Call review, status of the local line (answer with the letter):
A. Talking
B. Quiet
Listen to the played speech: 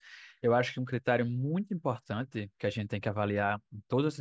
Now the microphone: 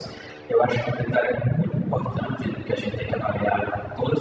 B